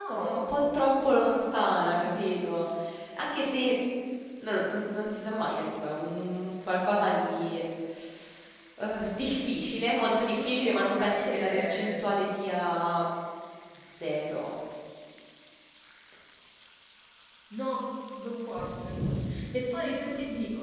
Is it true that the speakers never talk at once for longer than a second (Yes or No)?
No